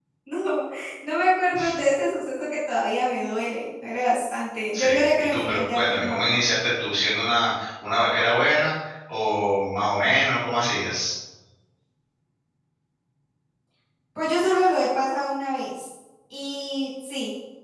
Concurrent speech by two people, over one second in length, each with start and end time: 4.7-6.4

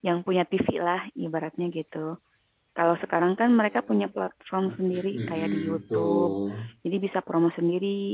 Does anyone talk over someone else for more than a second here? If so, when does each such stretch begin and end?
4.6-6.3

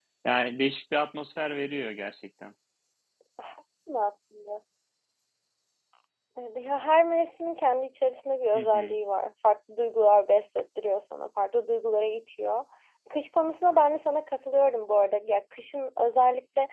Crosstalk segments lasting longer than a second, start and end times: none

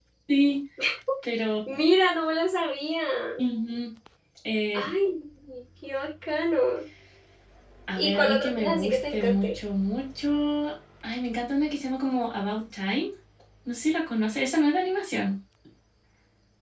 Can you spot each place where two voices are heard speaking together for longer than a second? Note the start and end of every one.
8.0-9.5

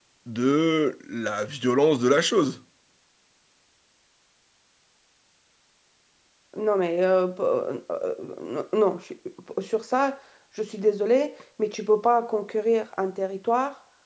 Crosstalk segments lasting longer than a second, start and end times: none

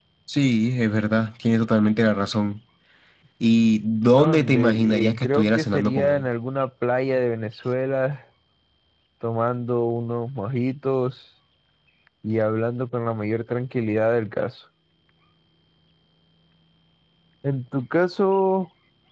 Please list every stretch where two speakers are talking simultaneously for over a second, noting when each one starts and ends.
4.0-6.3

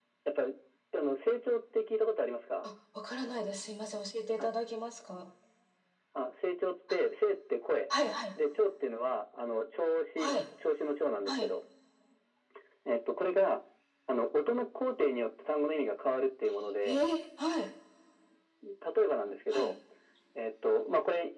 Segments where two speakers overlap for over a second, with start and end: none

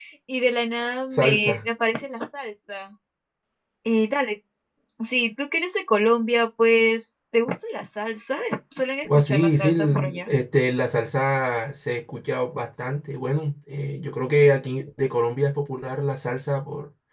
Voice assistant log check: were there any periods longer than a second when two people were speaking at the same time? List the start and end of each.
9.0-10.3

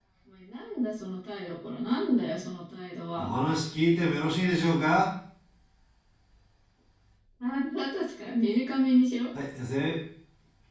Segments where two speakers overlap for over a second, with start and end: none

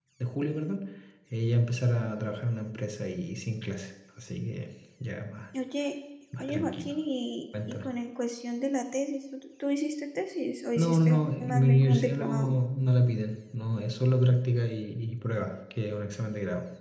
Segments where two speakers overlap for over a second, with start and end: 10.8-12.5

